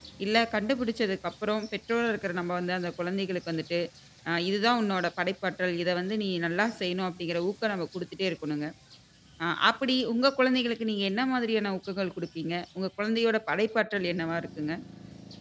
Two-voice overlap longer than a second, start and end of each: none

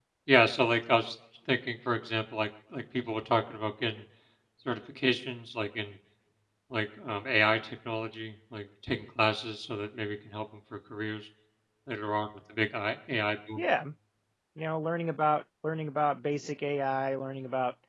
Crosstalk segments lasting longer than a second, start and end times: none

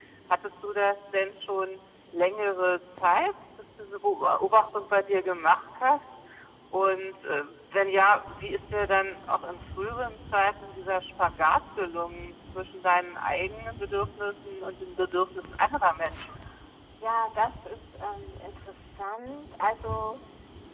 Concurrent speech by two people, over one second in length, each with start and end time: none

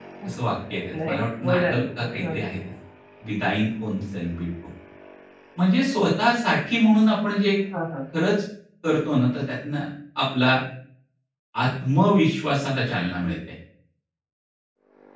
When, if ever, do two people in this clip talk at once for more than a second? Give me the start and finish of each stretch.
1.0-2.4

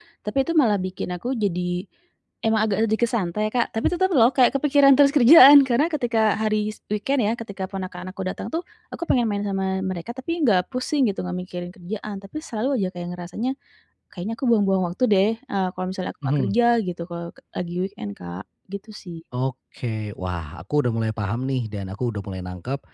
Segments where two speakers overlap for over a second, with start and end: none

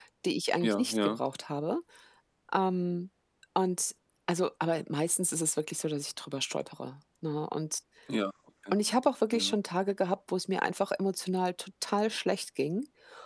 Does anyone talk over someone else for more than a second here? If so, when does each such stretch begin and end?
none

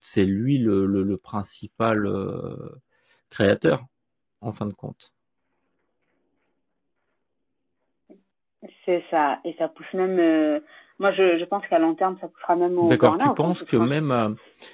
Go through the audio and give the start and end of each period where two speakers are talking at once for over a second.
12.8-14.1

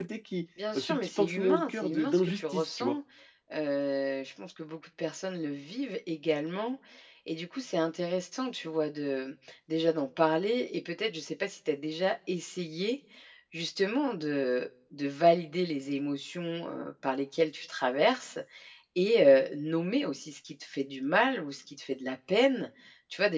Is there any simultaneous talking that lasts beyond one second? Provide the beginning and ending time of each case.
0.8-3.0

